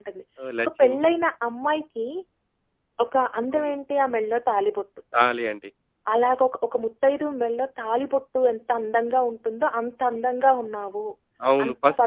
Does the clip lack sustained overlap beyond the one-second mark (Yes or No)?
Yes